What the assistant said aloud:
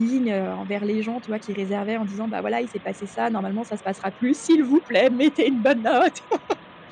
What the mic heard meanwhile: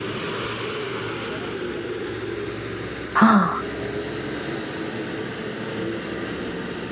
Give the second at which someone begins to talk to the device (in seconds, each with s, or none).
3.2 s